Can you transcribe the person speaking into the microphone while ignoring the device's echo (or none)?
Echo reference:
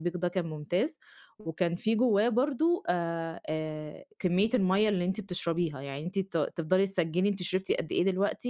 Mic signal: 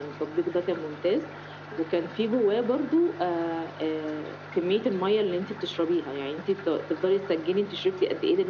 none